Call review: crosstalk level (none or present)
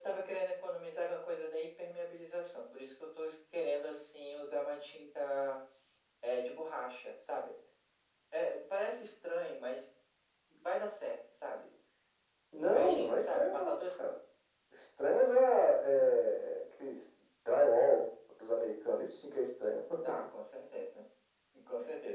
present